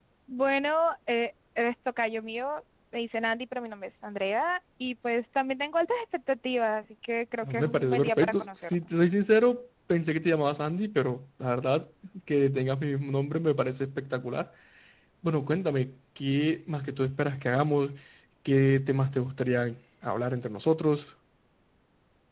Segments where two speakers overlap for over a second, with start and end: 7.4-8.8

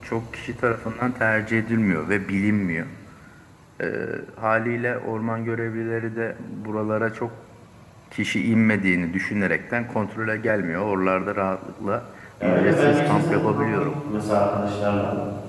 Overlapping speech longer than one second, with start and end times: 12.4-13.8

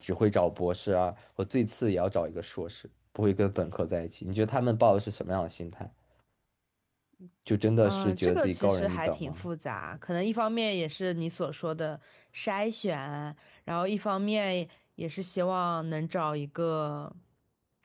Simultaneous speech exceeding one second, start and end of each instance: 7.8-9.5

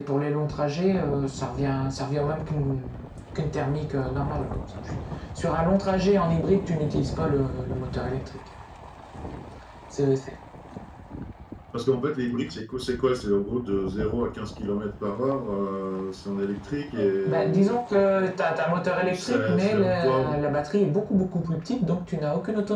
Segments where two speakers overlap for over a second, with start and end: 19.0-20.4

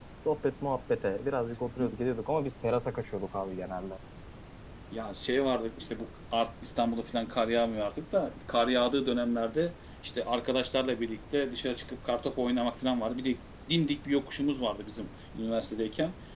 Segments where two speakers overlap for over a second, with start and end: none

